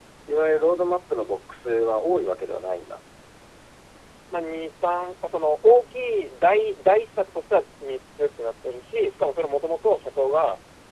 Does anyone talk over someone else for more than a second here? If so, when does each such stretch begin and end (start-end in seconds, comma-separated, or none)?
none